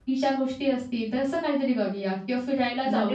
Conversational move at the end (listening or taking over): taking over